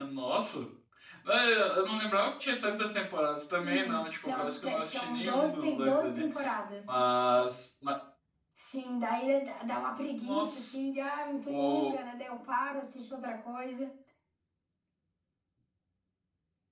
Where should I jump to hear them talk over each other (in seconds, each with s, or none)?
3.6 s